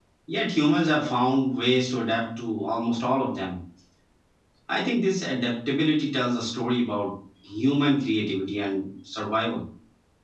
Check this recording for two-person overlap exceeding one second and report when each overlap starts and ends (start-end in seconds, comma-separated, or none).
none